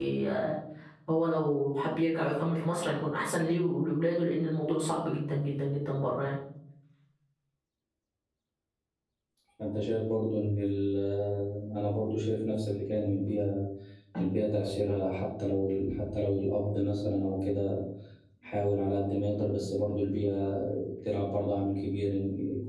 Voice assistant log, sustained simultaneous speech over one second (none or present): none